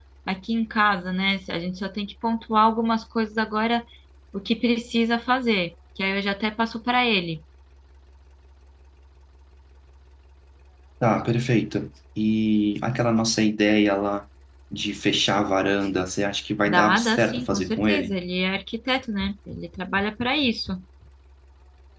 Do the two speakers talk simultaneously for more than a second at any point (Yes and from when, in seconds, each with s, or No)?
Yes, from 16.6 s